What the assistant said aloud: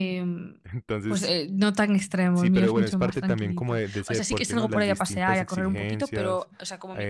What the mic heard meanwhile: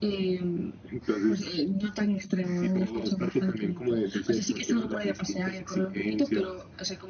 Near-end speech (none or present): none